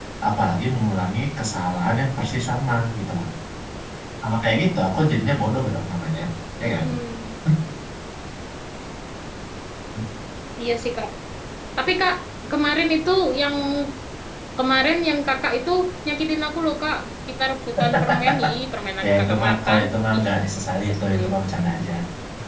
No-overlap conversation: No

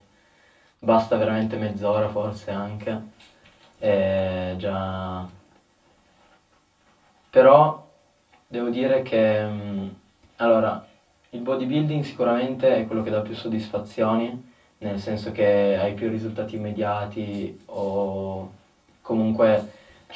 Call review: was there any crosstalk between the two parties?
No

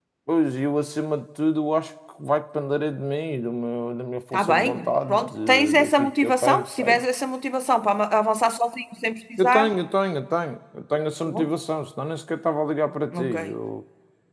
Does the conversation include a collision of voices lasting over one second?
Yes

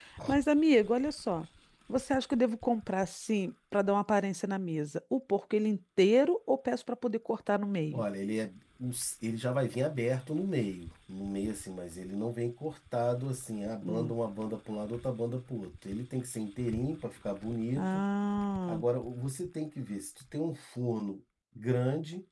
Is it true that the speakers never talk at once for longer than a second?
Yes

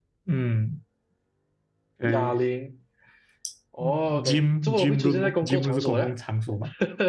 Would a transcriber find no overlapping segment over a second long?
No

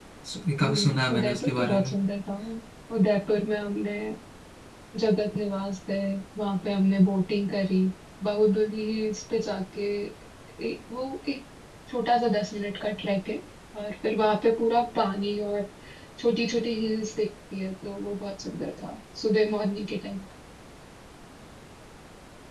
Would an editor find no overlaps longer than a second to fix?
No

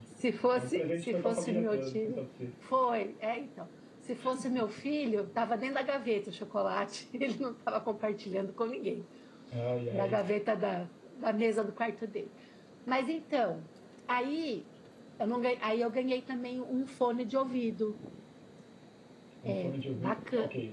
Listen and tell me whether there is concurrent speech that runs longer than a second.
Yes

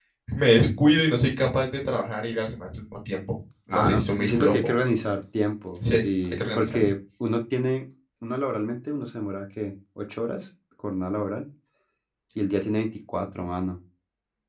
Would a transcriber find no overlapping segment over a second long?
No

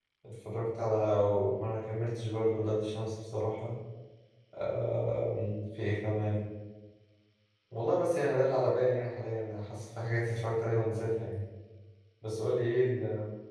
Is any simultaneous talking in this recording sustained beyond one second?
No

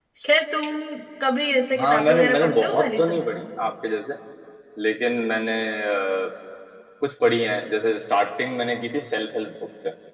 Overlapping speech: Yes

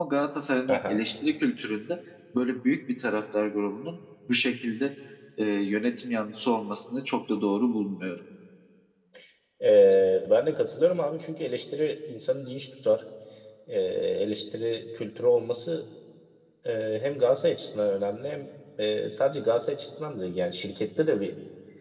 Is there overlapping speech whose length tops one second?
No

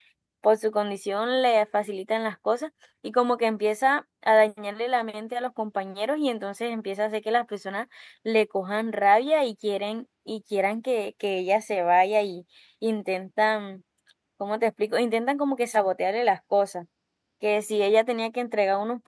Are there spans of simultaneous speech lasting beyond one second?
No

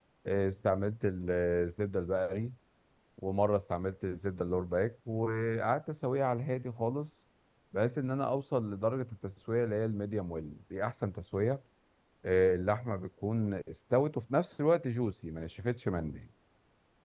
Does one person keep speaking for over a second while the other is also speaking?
No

